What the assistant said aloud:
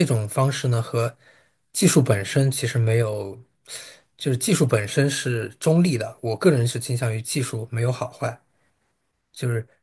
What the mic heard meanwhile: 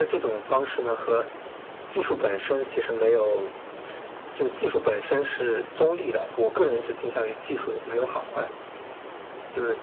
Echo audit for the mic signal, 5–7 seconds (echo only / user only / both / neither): echo only